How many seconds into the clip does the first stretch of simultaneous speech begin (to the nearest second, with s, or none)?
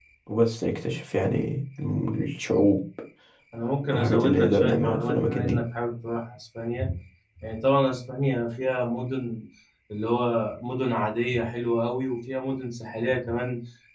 4 s